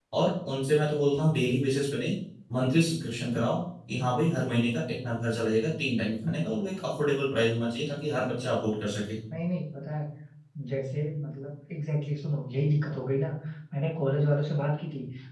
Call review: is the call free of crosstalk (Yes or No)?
Yes